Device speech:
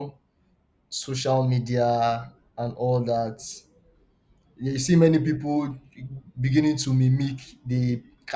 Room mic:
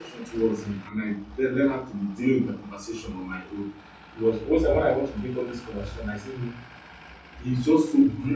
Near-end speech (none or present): present